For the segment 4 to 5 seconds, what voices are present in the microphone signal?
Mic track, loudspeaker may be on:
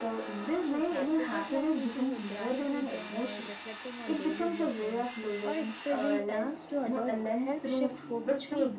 both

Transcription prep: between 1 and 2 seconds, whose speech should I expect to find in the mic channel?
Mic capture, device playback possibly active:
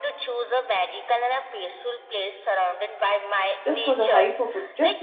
echo only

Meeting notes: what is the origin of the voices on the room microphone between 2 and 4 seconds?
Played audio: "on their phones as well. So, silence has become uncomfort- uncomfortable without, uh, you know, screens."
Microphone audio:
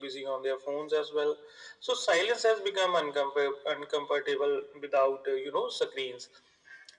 echo only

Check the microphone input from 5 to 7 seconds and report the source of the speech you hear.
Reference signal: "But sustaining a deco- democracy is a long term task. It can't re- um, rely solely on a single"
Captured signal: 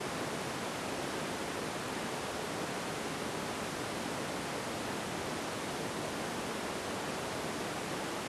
neither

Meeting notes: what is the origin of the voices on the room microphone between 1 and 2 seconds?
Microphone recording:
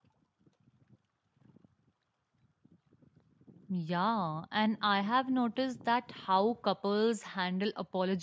neither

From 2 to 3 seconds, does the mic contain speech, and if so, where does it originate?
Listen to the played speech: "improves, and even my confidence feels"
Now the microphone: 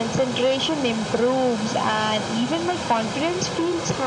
echo only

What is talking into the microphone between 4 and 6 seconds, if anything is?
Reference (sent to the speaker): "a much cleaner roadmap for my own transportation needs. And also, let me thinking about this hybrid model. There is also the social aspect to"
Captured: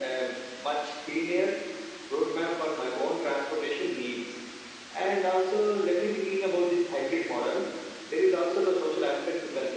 echo only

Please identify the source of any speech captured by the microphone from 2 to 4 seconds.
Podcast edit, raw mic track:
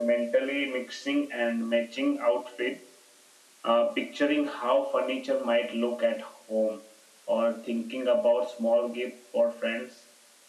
echo only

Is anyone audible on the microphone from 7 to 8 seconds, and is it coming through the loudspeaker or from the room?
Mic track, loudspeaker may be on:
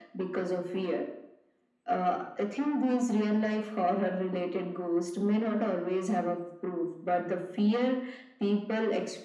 echo only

